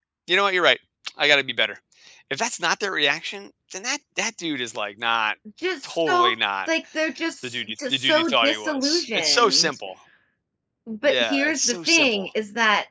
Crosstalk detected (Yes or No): Yes